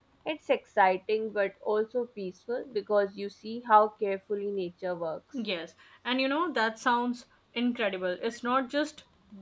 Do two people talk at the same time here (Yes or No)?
No